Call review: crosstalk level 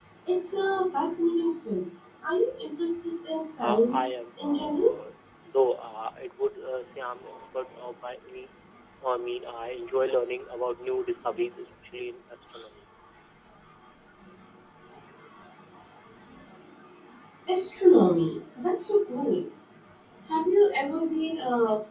present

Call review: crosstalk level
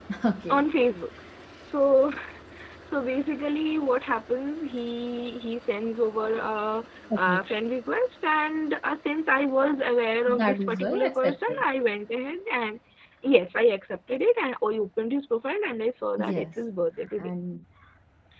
present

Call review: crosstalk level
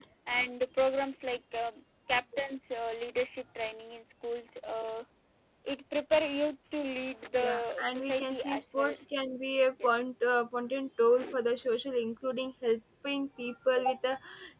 present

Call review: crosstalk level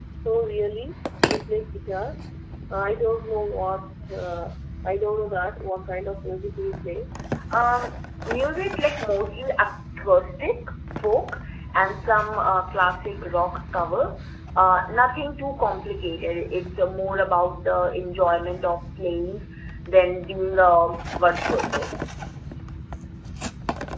none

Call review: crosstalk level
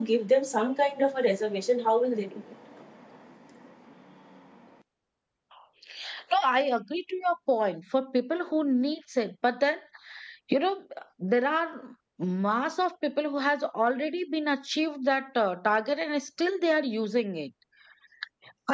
none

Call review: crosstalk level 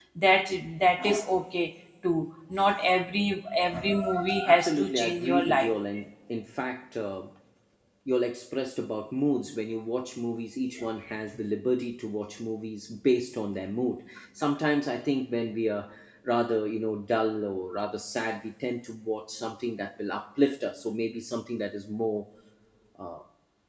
present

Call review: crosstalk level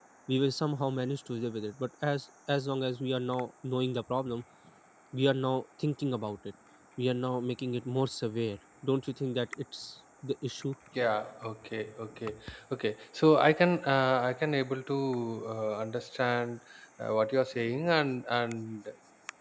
none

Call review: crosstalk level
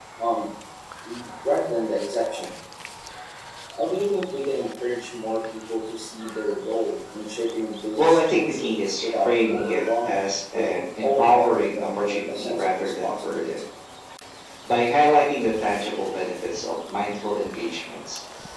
present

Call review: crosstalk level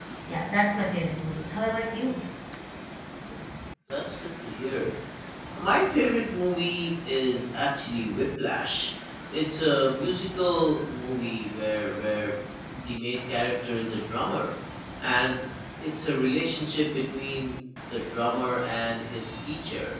none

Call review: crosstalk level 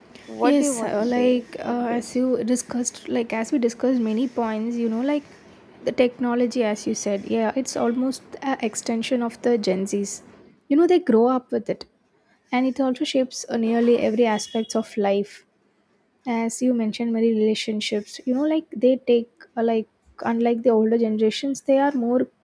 present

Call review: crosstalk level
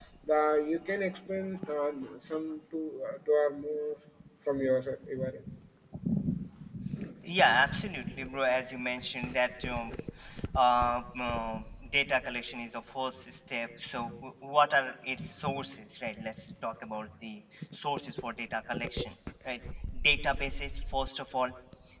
none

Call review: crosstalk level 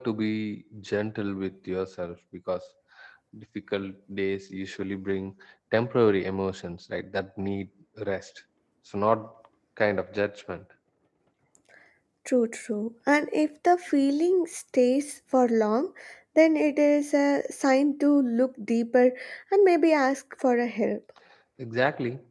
none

